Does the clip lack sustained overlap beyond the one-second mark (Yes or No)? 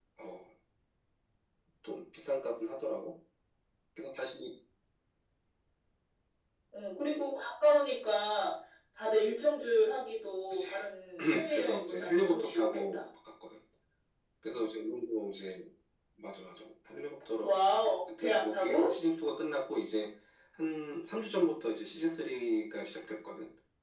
No